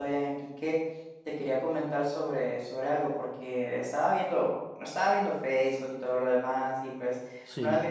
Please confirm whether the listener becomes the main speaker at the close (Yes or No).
No